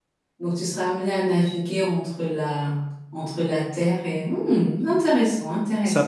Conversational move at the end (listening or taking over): taking over